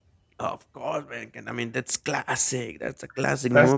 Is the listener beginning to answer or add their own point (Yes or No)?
No